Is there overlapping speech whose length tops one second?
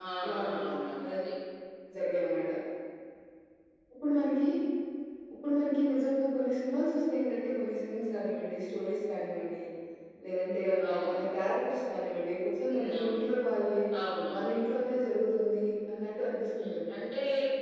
No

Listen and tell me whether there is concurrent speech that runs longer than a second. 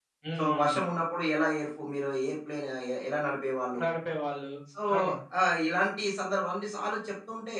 No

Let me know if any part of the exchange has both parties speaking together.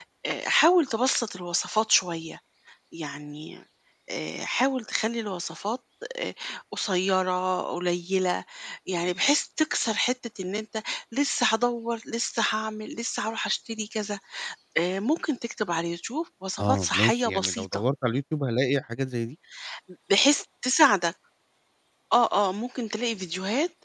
Yes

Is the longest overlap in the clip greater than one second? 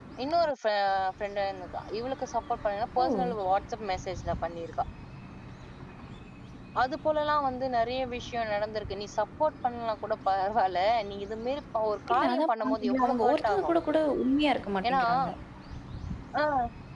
Yes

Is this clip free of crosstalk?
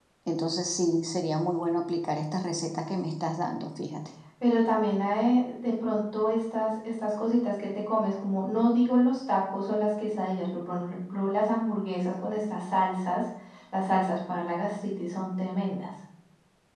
Yes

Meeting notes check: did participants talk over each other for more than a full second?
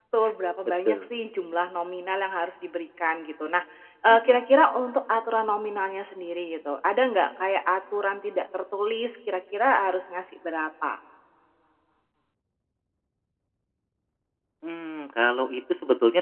No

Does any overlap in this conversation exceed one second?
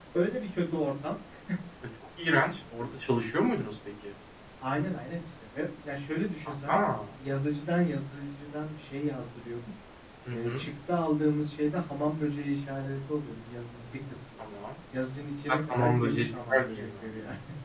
Yes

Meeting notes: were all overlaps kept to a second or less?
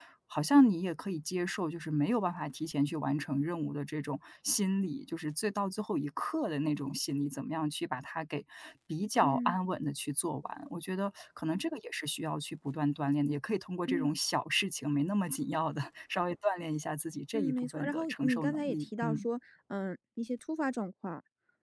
No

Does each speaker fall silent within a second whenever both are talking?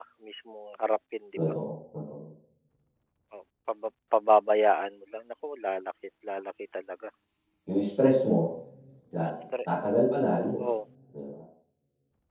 Yes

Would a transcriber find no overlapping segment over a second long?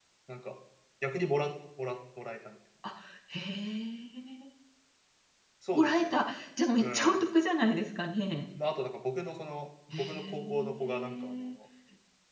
No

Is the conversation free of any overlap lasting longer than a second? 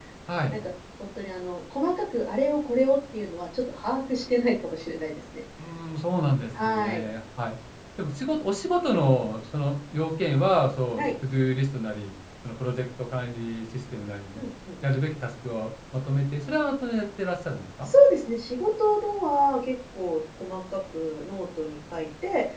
Yes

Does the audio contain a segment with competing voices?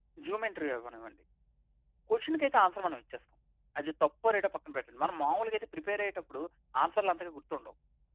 No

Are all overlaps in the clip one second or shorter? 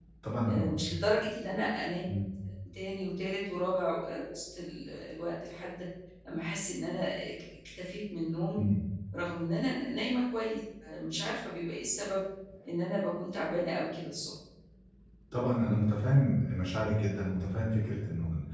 Yes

